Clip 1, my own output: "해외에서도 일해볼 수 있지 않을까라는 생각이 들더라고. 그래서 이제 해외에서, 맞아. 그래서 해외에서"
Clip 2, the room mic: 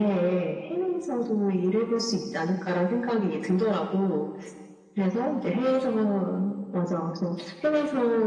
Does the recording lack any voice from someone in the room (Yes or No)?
Yes